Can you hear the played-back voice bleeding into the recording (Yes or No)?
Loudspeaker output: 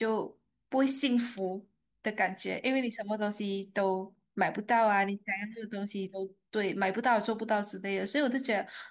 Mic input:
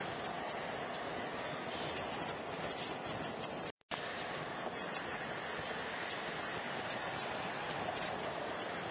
No